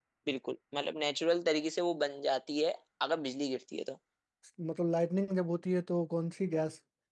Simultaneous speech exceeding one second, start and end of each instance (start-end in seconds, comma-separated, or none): none